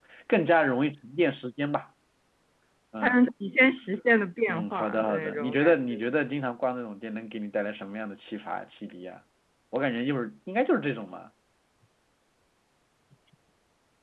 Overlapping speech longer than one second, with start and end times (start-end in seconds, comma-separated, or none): 4.5-6.0